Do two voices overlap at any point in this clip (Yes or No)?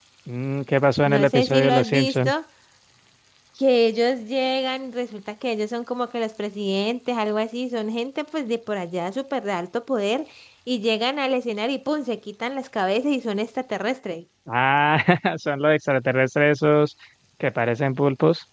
Yes